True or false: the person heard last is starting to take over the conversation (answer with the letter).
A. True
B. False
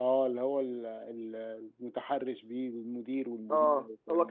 A